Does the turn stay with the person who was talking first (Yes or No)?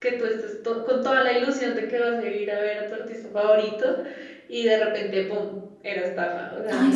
No